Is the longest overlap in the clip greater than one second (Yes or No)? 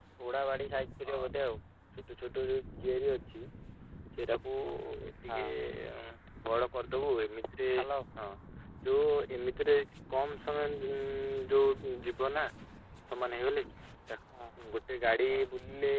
No